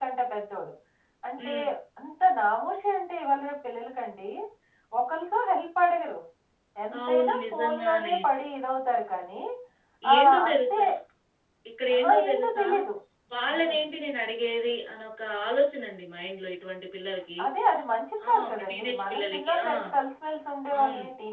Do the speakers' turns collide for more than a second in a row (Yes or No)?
Yes